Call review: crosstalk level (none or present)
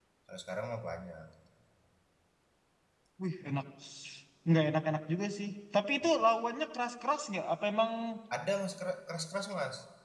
none